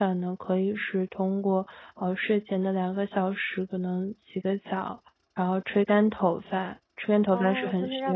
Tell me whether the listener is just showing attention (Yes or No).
No